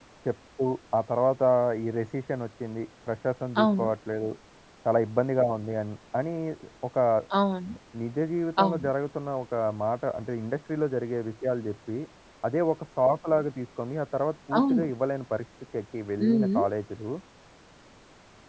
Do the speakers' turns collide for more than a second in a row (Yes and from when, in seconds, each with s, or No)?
No